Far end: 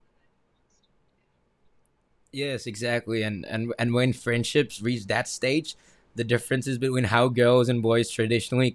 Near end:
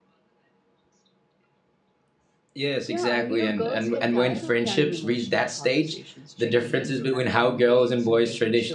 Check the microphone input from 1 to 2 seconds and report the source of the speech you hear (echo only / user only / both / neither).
neither